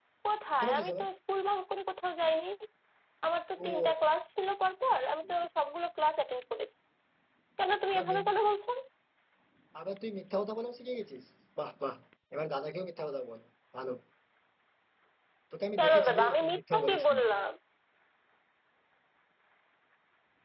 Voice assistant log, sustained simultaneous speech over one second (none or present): present